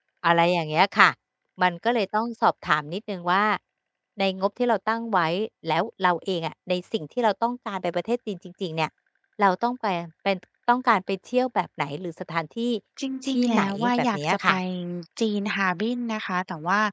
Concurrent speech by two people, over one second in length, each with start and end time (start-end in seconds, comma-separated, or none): 13.3-14.5